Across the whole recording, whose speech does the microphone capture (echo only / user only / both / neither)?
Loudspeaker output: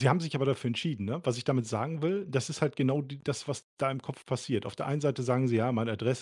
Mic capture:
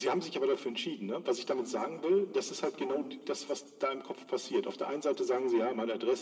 echo only